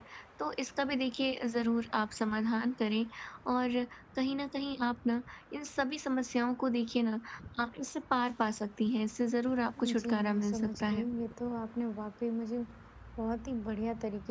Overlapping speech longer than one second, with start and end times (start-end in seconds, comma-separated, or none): 9.8-11.1